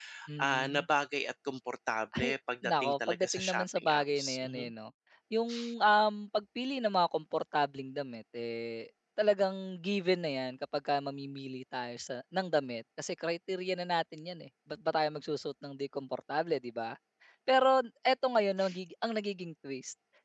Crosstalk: present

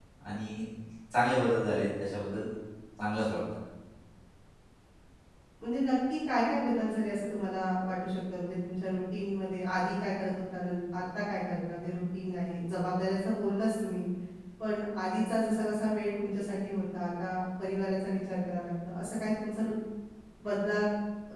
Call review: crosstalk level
none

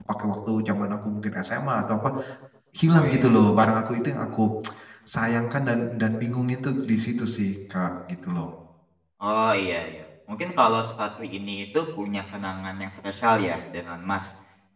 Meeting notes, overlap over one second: none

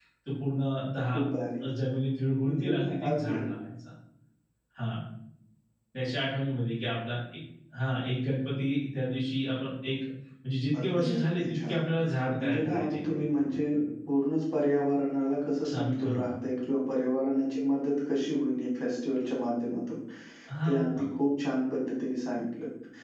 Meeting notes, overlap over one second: present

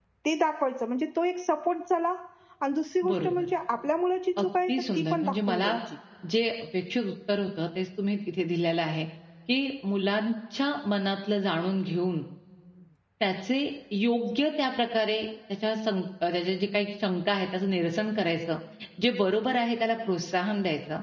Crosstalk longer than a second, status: present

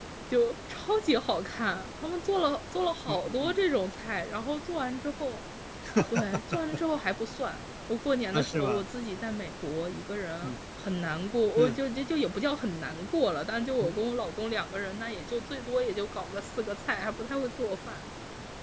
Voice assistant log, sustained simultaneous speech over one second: none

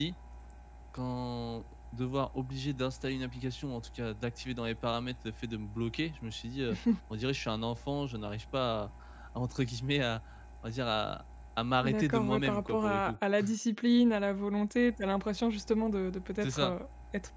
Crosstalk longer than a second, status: present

